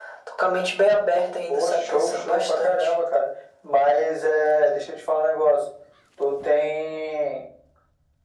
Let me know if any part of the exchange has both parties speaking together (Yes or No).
Yes